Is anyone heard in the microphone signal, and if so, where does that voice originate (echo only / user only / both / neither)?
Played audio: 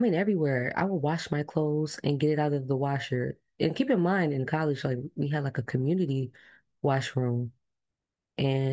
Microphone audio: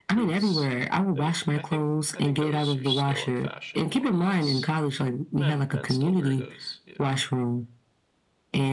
both